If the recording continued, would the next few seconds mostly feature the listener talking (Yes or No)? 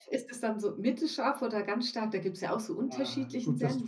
Yes